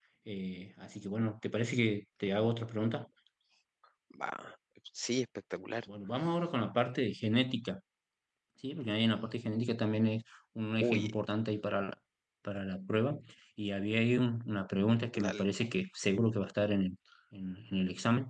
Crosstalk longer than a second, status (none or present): none